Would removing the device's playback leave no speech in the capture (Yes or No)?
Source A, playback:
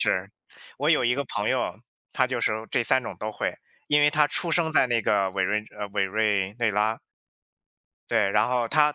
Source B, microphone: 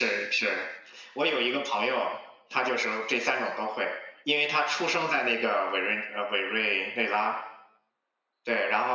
Yes